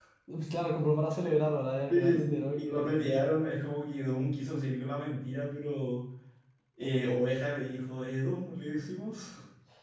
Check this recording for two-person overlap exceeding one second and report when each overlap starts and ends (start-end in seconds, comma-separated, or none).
1.9-3.2